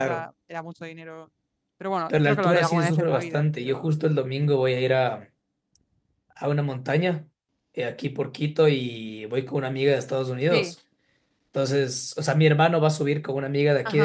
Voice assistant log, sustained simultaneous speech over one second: present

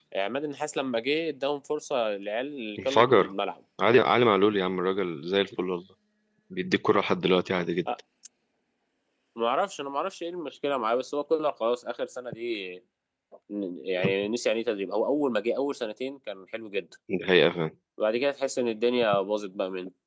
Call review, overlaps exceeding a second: none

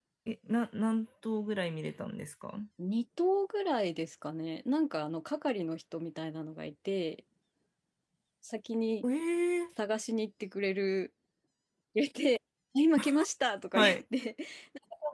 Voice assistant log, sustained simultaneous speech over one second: none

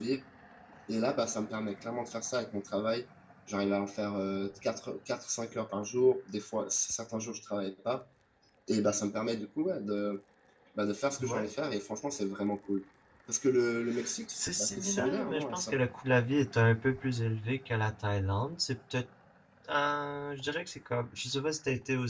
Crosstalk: present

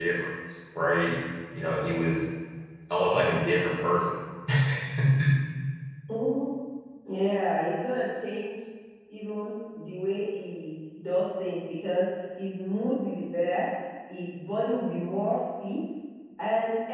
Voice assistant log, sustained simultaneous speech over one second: none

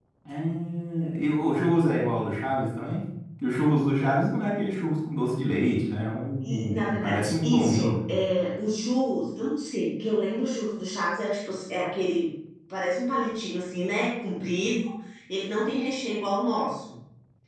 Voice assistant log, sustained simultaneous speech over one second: present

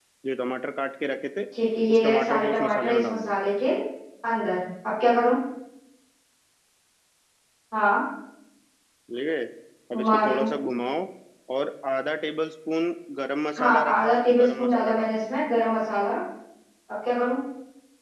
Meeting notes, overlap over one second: present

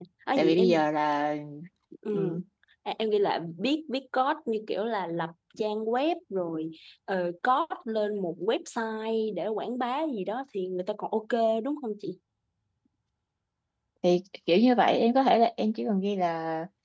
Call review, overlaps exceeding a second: none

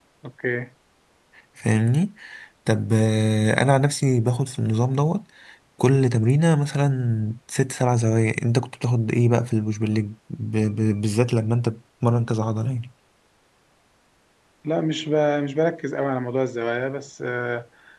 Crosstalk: none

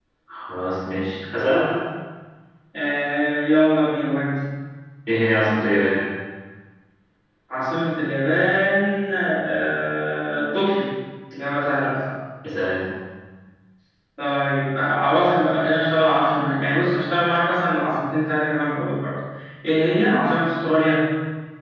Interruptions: none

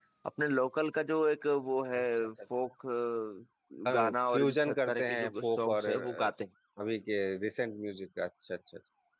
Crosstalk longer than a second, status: present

